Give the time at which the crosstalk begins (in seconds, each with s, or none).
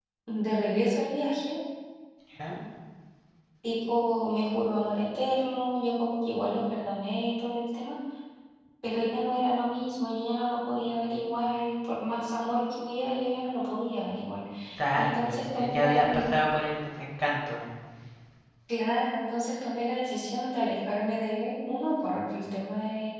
14.9 s